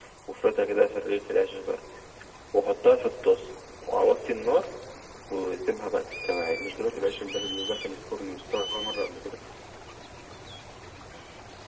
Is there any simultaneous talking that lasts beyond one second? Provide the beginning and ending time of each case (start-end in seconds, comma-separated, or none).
none